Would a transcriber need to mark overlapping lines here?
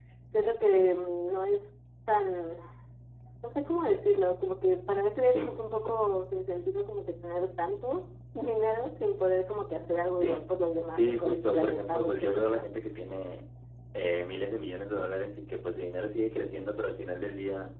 Yes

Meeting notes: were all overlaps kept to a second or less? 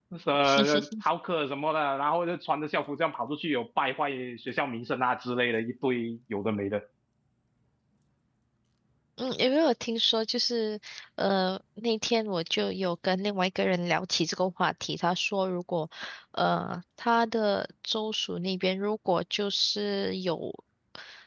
Yes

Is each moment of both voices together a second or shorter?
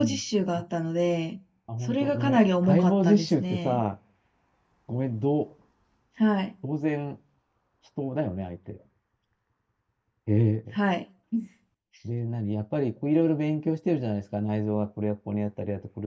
No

